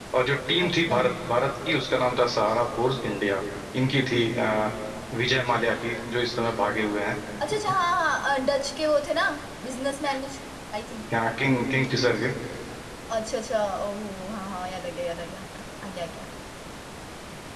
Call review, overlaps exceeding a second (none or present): none